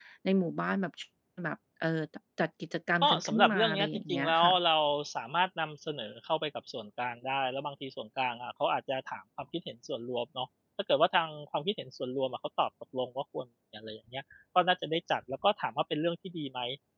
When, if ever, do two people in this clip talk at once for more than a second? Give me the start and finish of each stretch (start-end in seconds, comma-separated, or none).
3.0-4.6